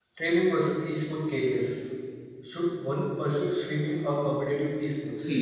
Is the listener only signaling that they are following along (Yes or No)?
No